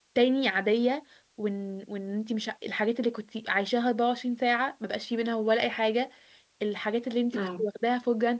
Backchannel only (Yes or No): Yes